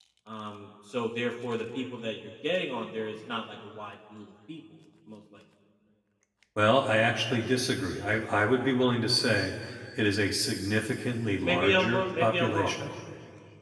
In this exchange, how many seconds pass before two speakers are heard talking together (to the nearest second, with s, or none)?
11 s